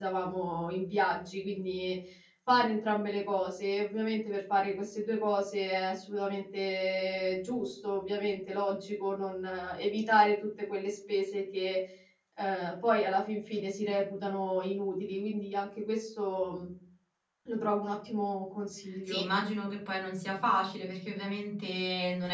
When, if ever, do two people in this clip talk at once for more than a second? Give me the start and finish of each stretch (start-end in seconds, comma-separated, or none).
none